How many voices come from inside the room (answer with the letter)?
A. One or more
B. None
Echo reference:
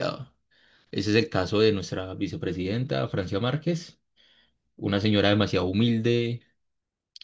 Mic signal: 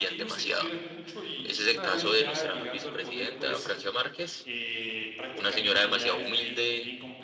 A